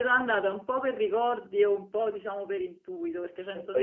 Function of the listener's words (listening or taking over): taking over